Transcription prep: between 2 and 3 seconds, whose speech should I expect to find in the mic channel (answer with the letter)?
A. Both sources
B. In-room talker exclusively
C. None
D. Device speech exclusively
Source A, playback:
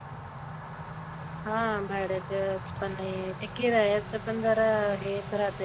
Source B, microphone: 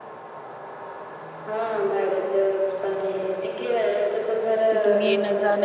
D